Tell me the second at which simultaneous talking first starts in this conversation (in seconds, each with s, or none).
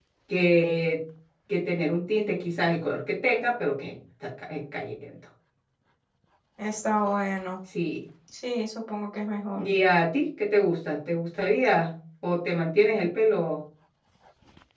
none